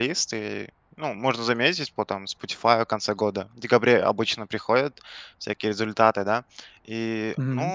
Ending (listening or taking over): listening